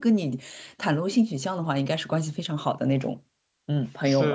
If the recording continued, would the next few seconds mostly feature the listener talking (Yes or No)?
Yes